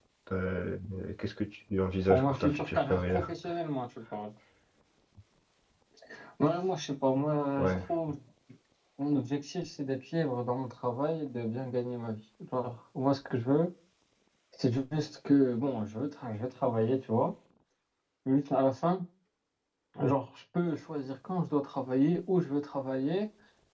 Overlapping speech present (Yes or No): Yes